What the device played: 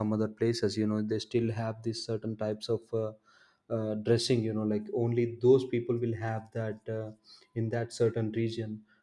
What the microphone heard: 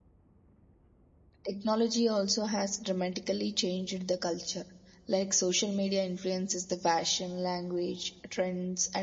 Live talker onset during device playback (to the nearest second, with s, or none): 1 s